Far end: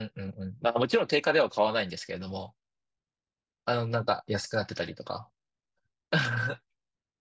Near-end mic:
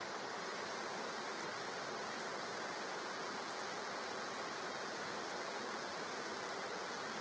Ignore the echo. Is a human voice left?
No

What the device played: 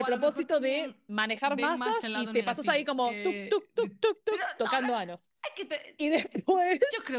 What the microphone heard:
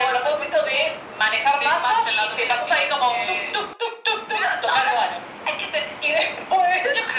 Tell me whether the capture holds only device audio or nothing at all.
Yes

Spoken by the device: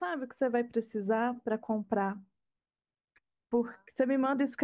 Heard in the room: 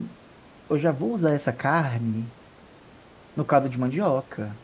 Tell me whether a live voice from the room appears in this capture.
Yes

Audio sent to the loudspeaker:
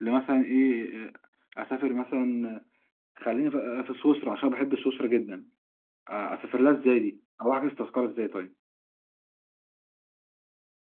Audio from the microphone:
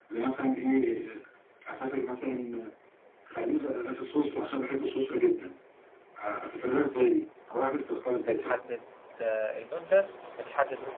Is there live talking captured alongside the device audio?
Yes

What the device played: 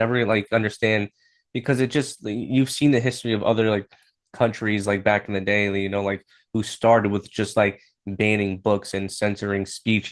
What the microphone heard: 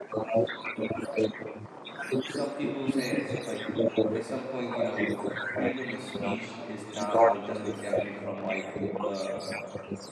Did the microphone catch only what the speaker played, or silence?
No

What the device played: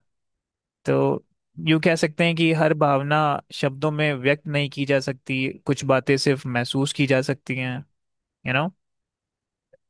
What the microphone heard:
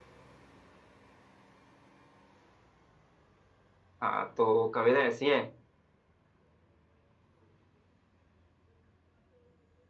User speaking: Yes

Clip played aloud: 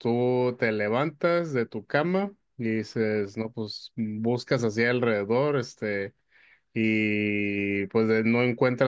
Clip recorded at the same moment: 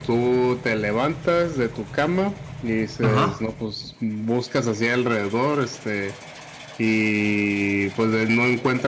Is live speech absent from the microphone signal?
No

